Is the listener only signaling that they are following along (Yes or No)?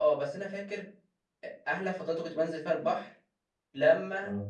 Yes